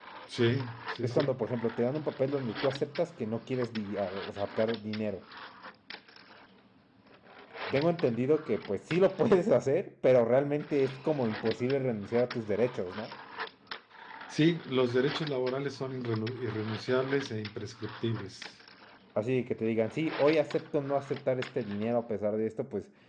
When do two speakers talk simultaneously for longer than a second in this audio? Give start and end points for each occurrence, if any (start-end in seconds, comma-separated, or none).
none